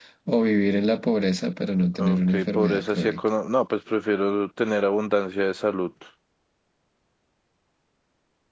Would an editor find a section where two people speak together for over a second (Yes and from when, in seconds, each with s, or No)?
Yes, from 2.0 s